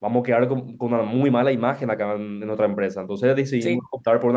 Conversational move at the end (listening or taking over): listening